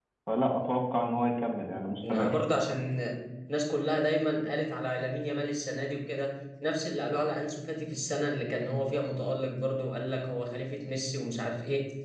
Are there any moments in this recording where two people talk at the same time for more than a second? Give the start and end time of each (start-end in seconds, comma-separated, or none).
none